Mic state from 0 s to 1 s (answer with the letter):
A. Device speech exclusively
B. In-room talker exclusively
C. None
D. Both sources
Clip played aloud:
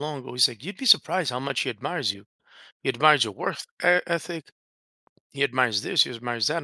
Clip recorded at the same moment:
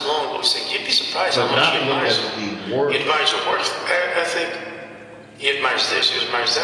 A